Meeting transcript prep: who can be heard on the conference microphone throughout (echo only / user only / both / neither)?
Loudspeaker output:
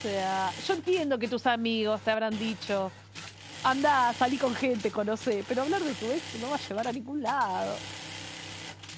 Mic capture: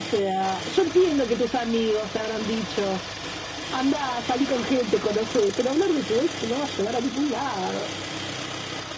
echo only